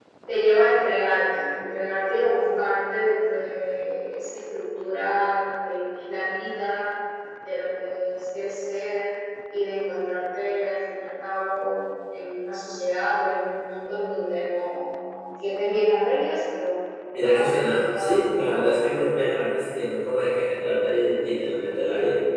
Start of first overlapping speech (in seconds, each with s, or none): 17.1 s